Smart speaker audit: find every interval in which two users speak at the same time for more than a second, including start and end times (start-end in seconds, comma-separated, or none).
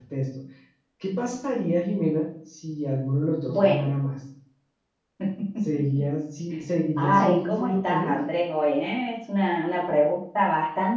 7.0-8.2